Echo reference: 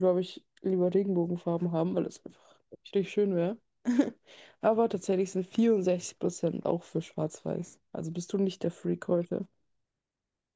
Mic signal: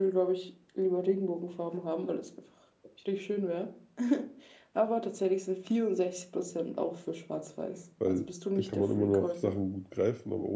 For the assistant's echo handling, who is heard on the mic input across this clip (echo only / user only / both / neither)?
both